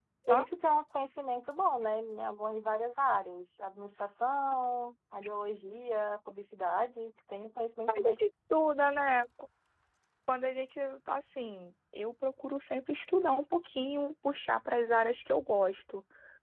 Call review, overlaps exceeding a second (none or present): none